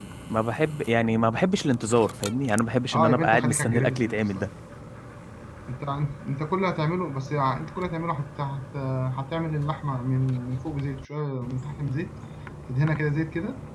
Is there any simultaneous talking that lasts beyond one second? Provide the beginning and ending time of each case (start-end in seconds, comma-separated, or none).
2.9-4.5